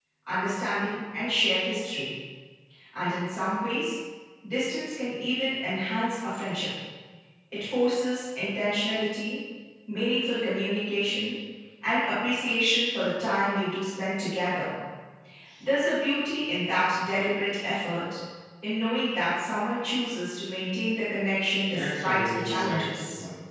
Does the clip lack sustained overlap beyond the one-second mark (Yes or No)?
No